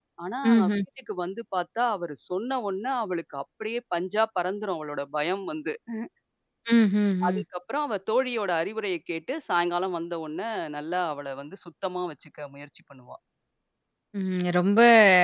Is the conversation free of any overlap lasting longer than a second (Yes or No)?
Yes